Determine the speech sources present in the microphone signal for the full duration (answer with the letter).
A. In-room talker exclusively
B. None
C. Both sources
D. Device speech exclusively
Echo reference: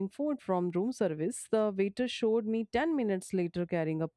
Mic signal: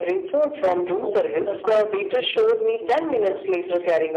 C